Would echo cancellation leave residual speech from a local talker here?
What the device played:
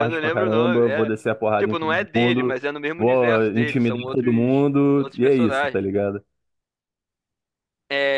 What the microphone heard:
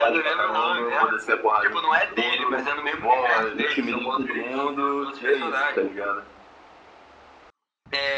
No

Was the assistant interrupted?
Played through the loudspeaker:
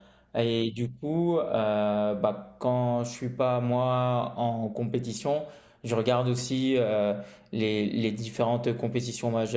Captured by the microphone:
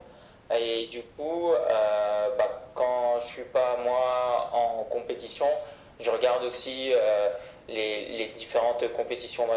No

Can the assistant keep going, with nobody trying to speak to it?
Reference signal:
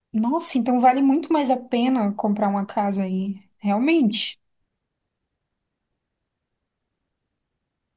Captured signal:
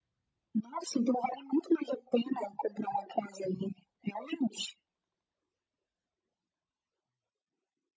Yes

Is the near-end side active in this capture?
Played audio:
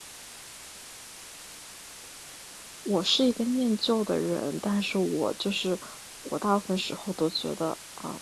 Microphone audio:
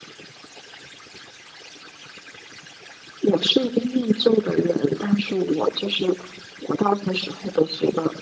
No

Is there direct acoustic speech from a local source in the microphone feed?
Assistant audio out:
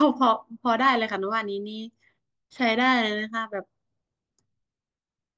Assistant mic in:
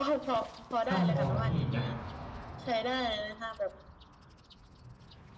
Yes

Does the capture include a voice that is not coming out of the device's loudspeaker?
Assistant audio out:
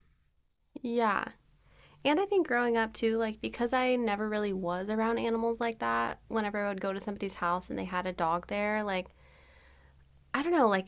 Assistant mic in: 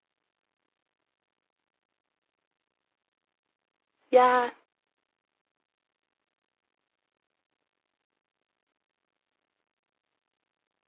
Yes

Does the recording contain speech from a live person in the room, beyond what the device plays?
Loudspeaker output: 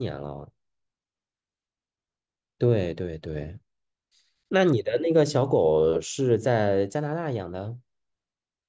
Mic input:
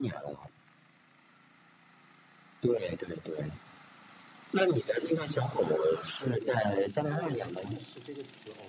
Yes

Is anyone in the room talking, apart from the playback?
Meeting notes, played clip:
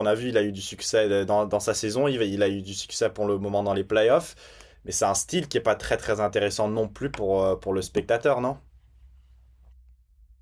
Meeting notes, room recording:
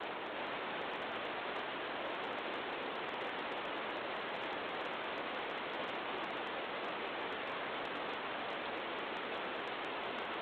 No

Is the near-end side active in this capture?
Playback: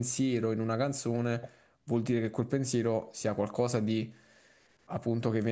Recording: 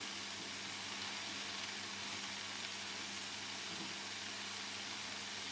No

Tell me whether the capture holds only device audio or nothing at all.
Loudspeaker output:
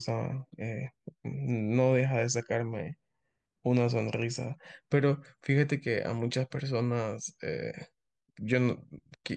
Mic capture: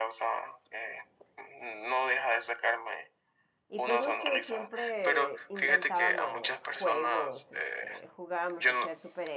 No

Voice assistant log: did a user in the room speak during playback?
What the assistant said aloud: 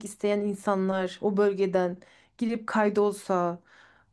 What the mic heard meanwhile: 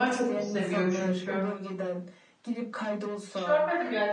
Yes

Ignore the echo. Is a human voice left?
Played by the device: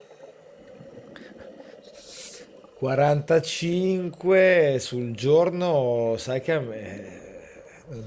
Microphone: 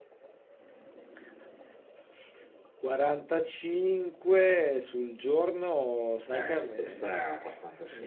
Yes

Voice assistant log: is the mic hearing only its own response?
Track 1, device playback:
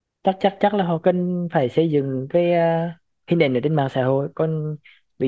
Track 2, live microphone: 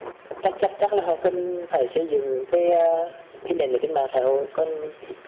Yes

